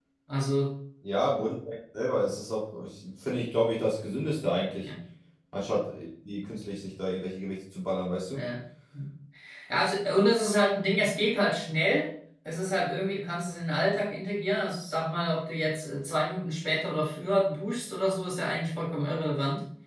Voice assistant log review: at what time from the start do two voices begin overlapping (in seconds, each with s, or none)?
none